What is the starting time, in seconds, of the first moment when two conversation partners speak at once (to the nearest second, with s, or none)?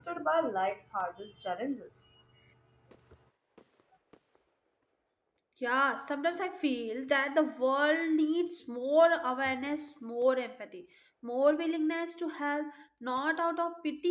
none